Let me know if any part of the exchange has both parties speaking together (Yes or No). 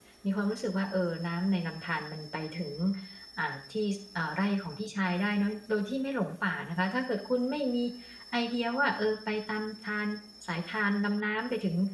No